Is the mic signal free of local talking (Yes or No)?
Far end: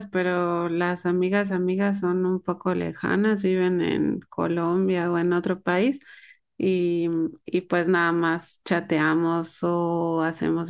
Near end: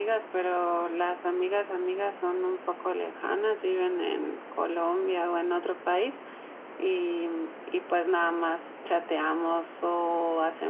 Yes